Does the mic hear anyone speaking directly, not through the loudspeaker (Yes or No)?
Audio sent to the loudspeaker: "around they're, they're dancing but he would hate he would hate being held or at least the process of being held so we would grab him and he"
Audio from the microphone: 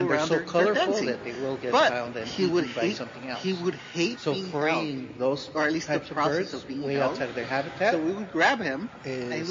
Yes